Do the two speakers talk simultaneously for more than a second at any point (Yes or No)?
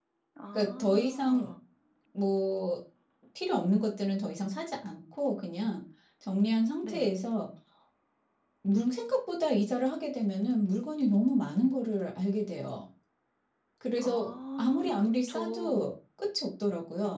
Yes